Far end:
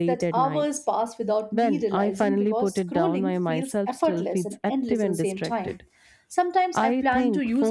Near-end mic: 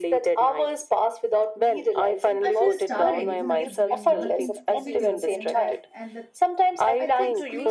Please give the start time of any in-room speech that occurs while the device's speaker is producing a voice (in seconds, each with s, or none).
2.4 s